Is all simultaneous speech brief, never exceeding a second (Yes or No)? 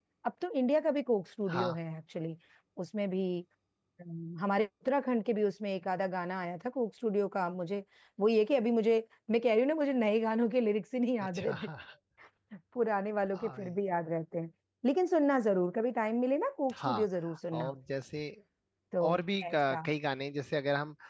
Yes